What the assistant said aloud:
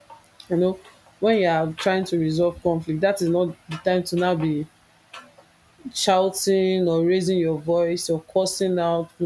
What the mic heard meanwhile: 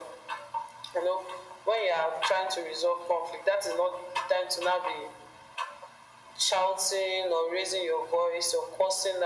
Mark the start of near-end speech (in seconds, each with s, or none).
none